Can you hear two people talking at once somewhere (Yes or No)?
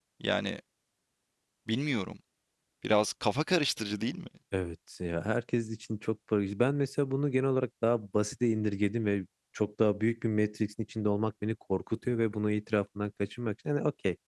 No